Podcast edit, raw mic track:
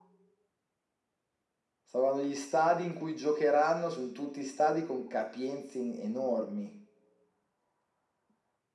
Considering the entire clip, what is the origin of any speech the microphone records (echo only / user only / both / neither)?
echo only